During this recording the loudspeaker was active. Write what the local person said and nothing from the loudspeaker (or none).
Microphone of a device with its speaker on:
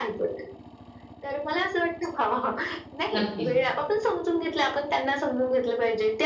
नक्कीच.